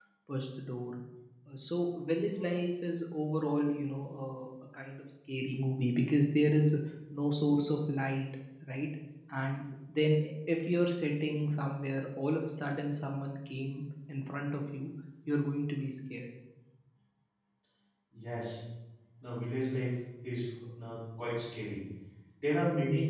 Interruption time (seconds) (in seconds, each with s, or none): none